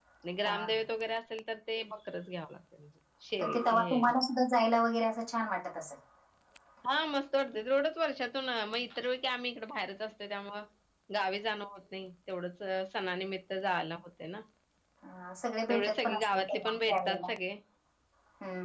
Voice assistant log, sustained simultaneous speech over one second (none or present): present